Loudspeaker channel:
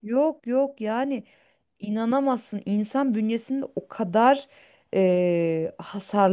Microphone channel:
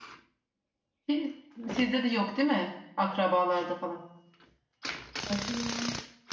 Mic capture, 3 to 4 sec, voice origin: user only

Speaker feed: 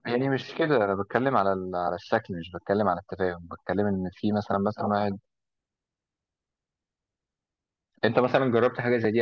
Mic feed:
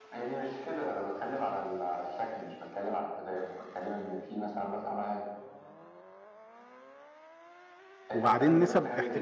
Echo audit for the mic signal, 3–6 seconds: echo only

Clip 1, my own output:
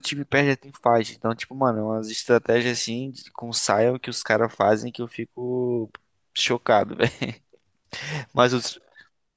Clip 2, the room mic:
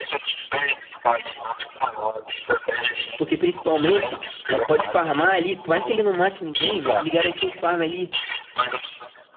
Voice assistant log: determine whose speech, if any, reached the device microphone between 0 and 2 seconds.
echo only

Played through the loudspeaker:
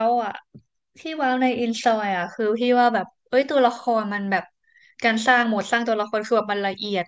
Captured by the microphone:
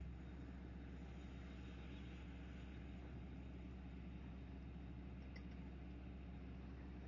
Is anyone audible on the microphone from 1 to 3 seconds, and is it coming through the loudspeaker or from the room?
neither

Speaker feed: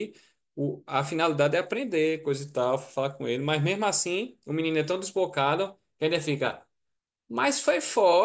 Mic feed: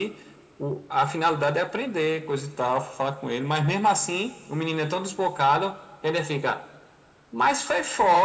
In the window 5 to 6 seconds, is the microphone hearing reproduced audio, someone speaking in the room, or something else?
echo only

